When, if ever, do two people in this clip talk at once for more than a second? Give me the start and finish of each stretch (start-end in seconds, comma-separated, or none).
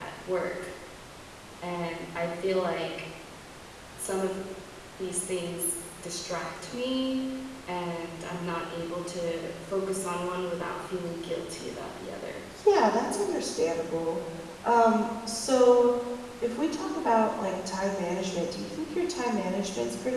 none